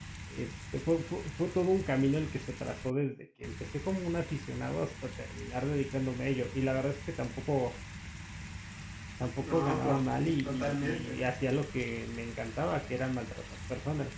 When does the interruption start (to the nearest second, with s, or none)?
9 s